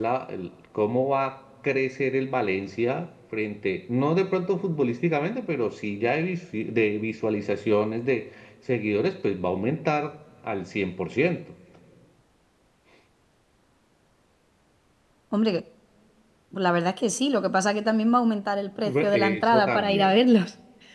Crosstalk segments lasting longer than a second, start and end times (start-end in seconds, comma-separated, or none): 18.8-20.1